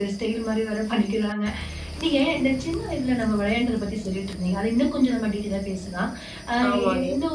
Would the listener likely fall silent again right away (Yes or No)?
Yes